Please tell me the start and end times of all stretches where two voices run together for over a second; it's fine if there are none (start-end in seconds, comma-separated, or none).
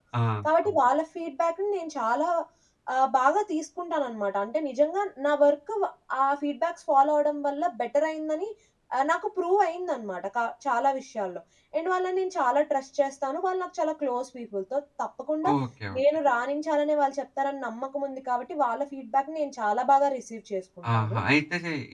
none